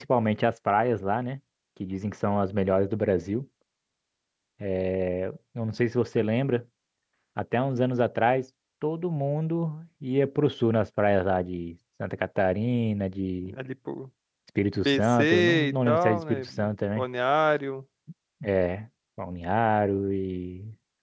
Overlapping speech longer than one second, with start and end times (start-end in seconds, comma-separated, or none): 14.8-16.4